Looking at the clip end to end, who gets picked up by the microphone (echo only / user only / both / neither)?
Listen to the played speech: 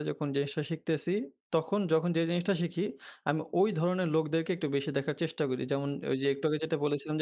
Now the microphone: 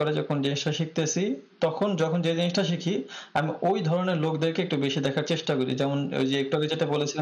echo only